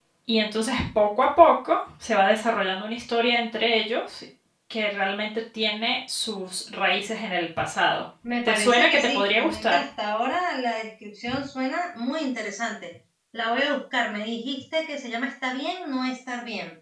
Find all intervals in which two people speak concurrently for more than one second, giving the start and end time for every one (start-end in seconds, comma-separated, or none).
8.4-9.8